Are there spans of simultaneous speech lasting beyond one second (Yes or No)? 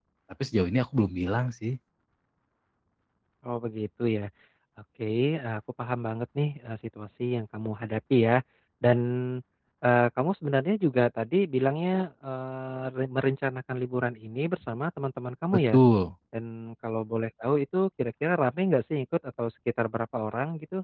No